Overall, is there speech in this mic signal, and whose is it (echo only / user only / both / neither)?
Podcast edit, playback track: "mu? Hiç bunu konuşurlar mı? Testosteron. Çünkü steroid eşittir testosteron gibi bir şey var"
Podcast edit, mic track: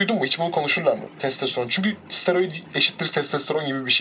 echo only